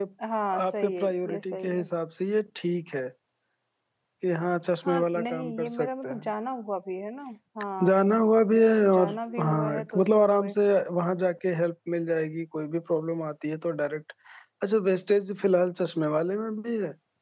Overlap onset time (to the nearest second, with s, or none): 1 s